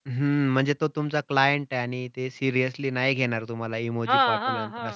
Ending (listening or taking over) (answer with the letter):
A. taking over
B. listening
A